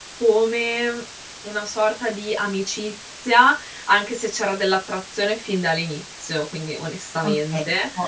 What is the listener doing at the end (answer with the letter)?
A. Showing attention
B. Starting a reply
B